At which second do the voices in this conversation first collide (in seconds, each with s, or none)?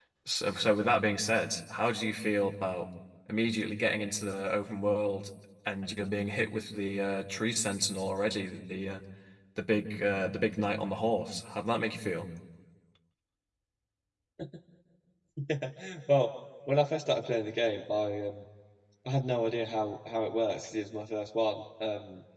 none